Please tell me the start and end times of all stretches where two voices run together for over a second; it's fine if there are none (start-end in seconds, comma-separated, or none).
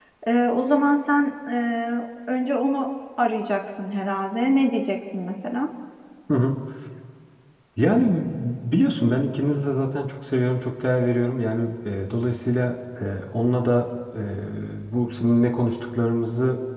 none